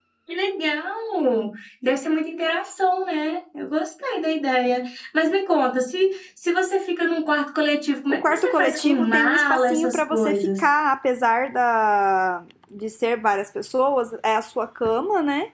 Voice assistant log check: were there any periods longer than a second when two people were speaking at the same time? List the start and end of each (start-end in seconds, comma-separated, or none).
8.1-10.6